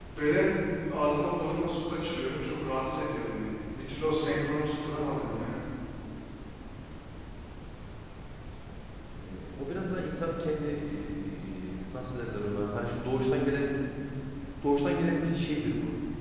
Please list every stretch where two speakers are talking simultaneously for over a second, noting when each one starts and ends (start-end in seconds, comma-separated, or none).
none